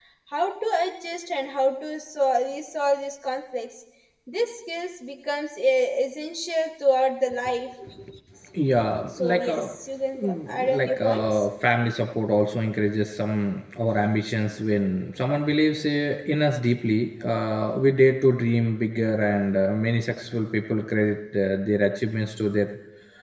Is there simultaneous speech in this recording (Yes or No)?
Yes